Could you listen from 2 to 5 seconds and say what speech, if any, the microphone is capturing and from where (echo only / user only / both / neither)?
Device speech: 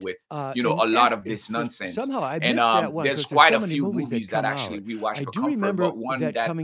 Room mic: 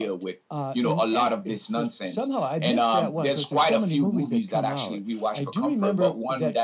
echo only